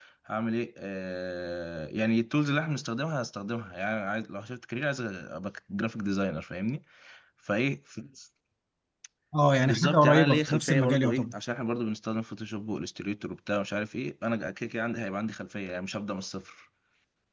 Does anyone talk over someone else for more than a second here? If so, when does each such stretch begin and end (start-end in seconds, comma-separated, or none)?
9.7-11.2